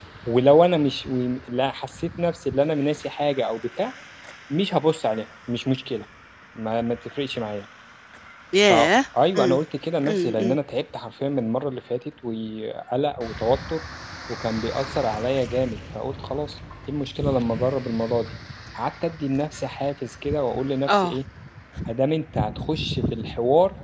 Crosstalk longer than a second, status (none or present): none